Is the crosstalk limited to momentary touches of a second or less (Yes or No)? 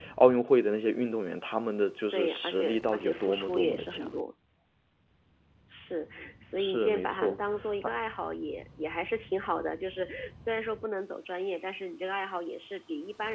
No